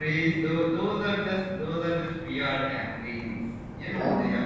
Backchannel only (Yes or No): Yes